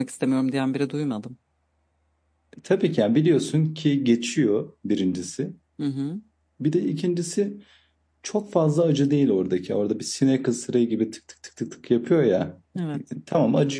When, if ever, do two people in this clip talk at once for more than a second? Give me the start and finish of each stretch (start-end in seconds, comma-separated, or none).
none